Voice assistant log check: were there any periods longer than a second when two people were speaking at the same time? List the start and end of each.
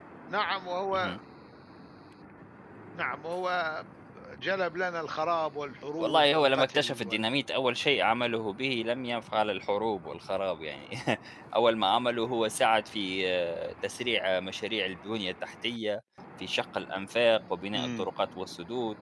6.0-7.3

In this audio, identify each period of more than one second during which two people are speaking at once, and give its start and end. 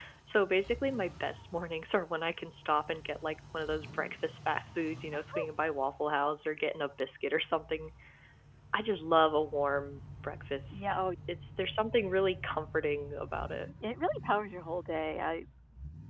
none

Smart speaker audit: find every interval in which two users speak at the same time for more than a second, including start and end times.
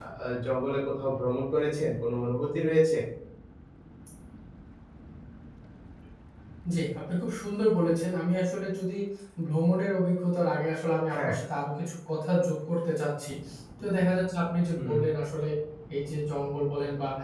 none

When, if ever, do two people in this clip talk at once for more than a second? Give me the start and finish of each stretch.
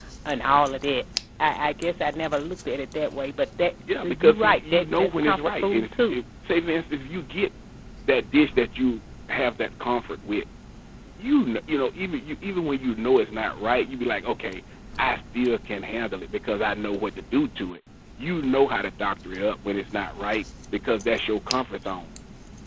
4.0-6.2

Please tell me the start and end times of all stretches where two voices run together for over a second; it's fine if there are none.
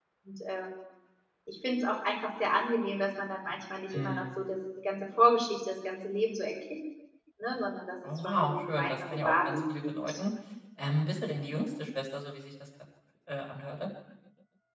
8.2-10.1

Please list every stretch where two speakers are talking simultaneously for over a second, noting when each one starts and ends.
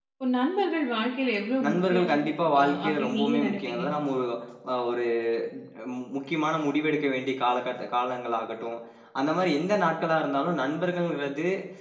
2.6-3.8

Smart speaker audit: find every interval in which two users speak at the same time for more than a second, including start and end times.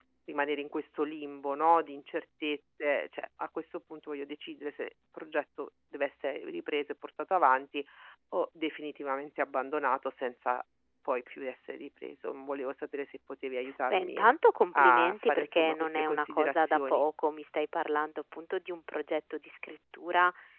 14.8-17.0

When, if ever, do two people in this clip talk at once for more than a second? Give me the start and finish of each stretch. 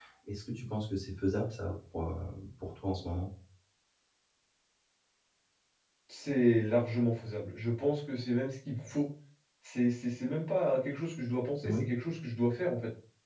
none

